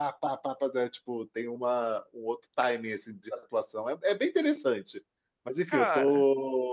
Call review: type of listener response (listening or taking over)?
listening